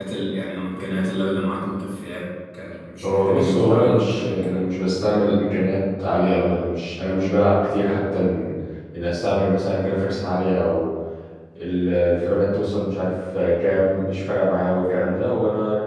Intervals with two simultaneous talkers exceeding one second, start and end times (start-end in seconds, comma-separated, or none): 3.0-4.6